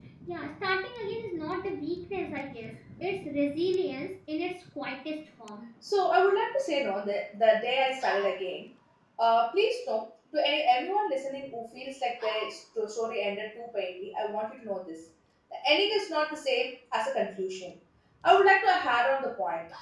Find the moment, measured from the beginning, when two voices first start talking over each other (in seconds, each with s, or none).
none